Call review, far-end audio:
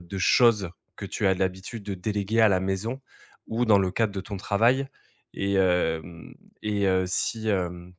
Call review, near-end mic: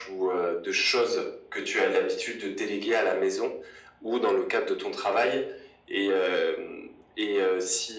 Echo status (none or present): present